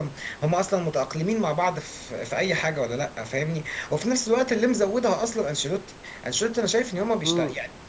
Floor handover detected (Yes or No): No